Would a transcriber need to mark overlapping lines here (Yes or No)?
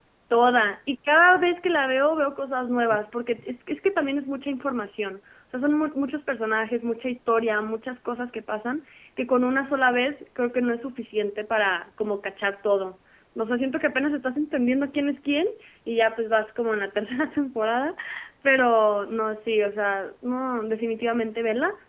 No